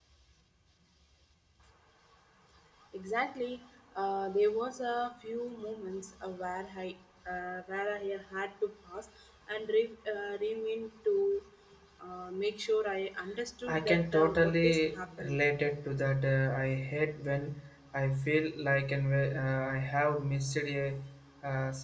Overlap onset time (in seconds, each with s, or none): 13.7 s